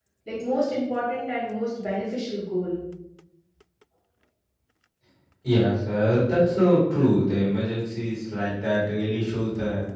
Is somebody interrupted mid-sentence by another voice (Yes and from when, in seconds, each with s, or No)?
No